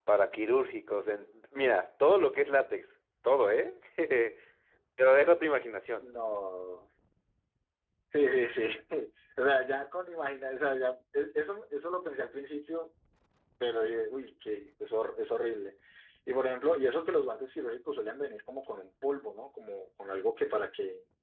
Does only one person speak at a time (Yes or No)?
Yes